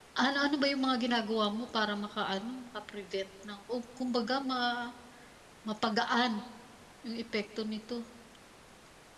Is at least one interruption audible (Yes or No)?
No